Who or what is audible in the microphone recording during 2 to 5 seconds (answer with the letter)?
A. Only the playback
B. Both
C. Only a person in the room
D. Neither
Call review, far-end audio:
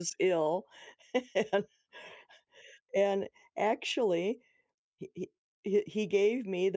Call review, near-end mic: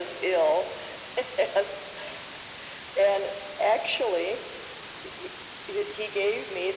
A